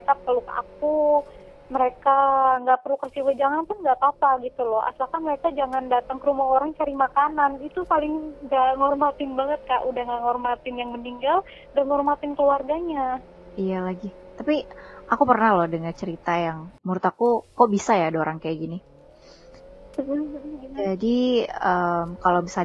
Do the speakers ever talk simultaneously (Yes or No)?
No